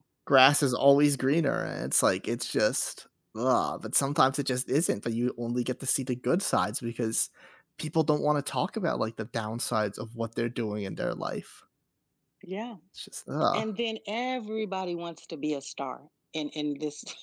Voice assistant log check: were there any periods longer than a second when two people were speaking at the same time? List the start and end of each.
none

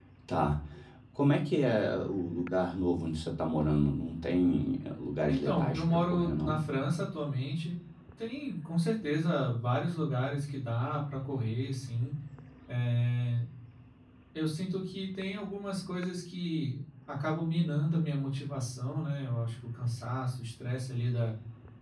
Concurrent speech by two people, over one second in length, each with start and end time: 5.3-6.6

